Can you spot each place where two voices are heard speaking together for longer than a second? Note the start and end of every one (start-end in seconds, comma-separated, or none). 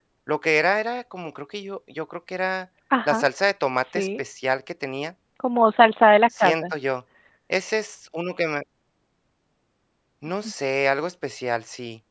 none